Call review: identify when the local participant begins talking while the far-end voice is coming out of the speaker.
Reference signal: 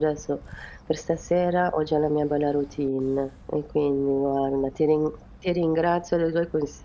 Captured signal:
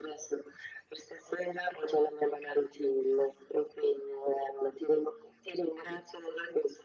none

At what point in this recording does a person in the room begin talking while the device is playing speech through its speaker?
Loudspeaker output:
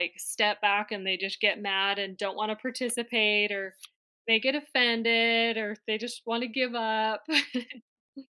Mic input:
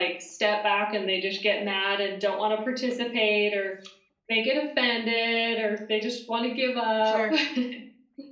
7.0 s

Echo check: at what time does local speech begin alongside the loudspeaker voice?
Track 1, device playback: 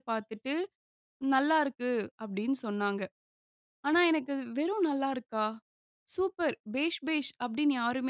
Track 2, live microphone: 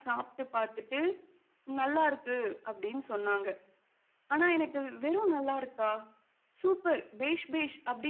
none

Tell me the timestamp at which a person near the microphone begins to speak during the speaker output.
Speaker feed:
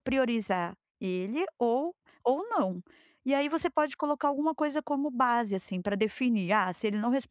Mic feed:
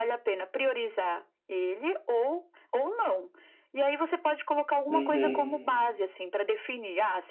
4.9 s

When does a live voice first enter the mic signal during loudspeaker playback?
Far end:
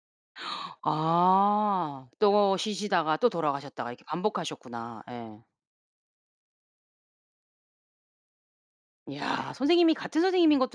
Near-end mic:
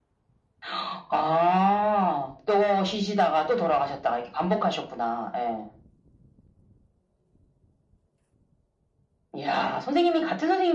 none

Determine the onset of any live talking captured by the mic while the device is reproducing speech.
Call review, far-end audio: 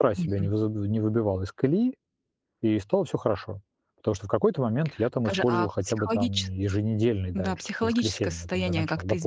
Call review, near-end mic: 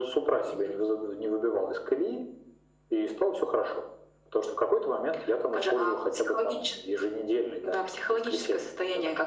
none

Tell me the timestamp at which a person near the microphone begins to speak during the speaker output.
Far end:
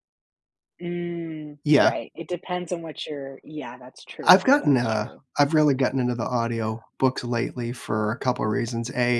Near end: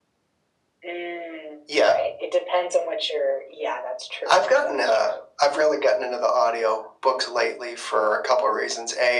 none

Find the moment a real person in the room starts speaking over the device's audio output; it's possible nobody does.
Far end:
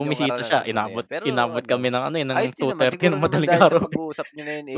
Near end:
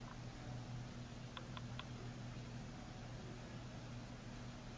none

